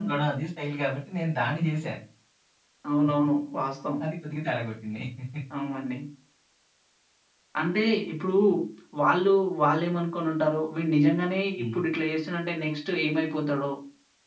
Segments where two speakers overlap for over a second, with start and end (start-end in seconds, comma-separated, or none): none